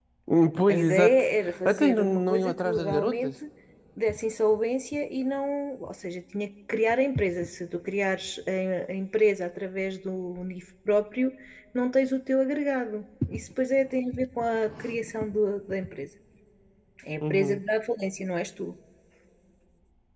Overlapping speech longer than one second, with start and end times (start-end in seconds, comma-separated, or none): 0.7-3.3